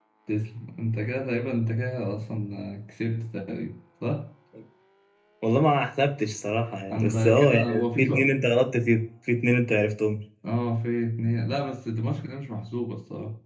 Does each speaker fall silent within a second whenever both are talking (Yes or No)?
No